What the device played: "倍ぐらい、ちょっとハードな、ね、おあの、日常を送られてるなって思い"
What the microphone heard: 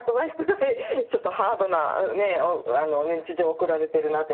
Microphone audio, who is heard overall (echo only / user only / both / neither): echo only